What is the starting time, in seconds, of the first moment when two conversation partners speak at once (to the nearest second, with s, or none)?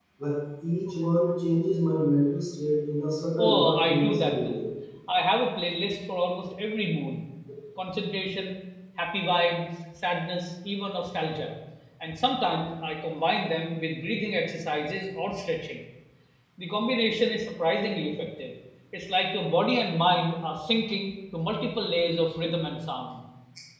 3 s